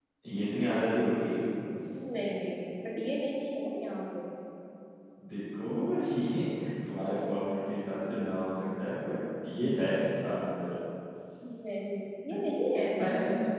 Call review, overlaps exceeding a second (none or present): none